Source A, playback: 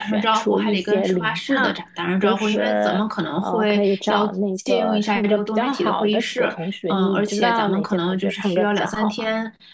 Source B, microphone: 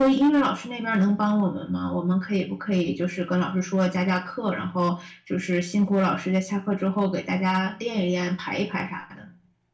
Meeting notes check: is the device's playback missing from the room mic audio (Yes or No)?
Yes